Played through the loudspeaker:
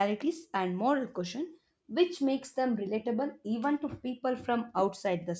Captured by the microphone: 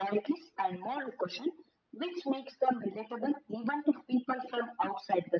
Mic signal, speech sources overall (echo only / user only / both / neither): echo only